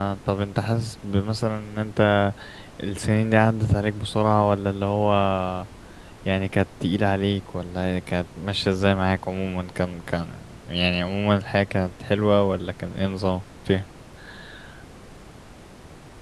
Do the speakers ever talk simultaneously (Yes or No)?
No